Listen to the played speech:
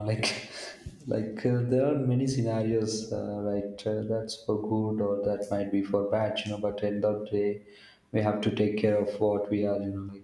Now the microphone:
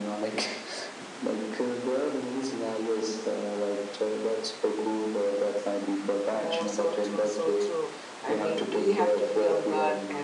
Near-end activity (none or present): present